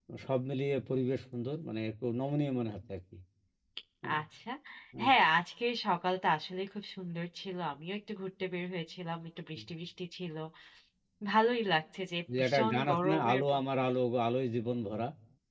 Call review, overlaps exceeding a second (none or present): present